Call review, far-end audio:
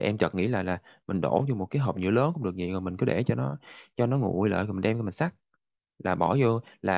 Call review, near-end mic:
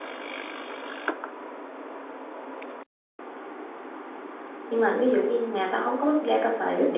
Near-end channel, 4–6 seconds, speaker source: user only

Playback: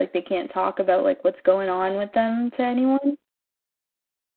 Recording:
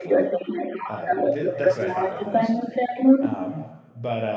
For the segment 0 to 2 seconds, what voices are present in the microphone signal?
both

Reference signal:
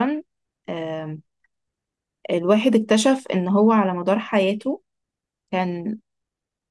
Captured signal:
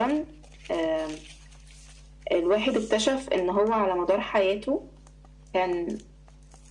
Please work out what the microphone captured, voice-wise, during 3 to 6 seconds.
echo only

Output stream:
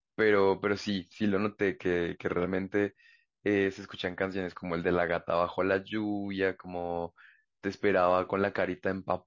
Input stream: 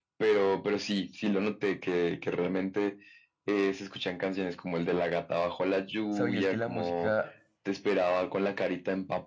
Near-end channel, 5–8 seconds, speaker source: both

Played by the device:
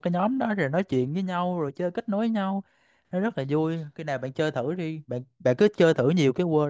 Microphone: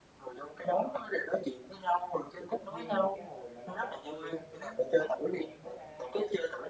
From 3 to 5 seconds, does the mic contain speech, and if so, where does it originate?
both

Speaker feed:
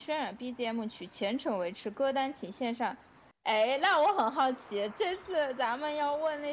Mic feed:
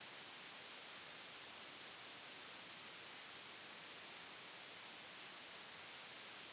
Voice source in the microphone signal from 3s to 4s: neither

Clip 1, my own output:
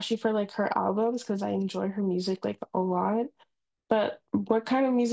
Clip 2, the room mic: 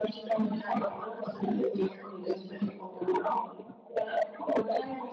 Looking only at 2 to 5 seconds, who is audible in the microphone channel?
echo only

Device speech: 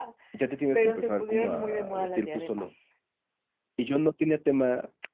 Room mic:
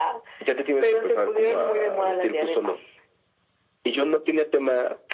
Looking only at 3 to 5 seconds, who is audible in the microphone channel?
echo only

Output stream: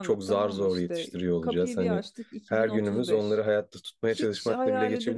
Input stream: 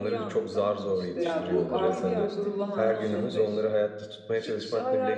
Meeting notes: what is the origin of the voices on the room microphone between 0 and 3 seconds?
both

